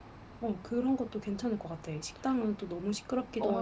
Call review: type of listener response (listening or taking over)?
taking over